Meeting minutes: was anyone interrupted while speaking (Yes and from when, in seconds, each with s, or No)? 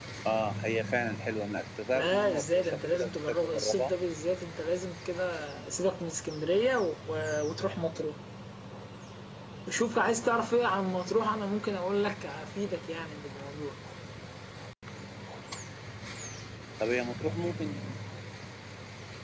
Yes, from 1.9 s